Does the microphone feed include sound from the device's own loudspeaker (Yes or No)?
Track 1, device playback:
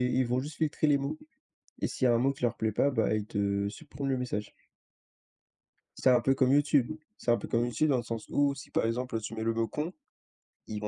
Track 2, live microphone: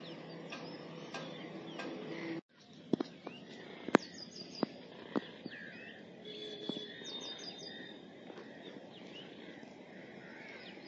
No